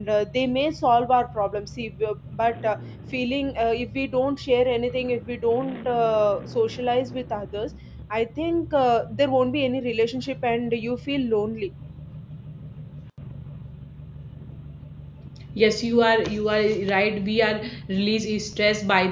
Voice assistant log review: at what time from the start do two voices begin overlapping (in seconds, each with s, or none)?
none